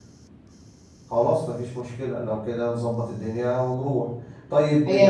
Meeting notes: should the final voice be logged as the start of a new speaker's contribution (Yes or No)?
No